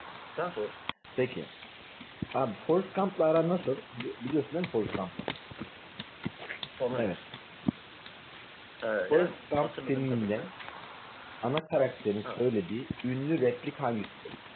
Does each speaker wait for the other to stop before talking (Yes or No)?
No